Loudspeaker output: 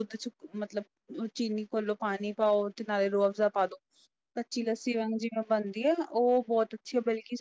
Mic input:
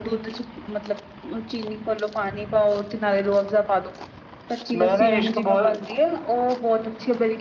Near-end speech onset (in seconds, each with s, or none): 4.8 s